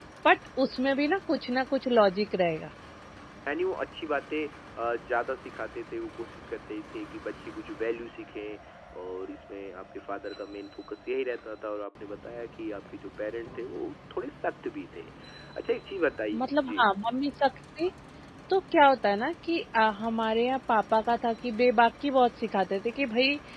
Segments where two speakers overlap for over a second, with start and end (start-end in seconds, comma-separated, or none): none